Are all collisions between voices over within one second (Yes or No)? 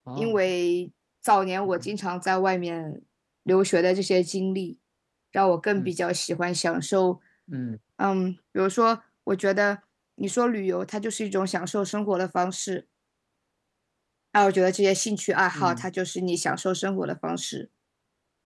Yes